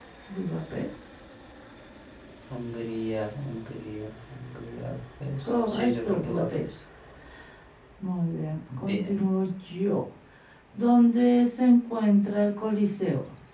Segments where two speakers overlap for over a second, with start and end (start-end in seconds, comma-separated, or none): 5.4-6.7